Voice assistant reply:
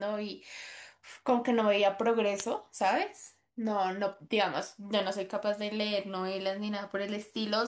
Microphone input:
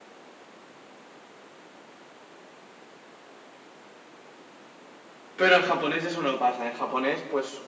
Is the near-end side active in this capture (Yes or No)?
Yes